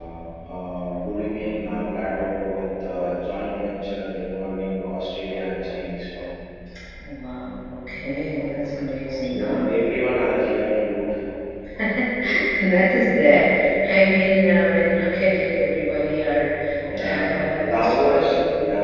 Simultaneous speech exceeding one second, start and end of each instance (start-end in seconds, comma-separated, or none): 17.0-18.3